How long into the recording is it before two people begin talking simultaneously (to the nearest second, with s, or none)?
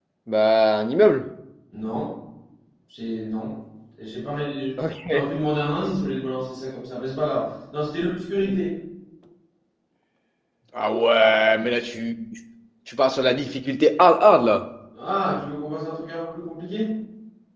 none